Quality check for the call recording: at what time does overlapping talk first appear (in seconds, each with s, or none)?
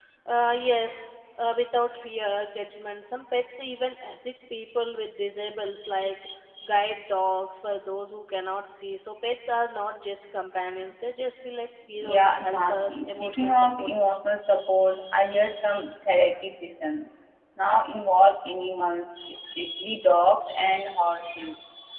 12.0 s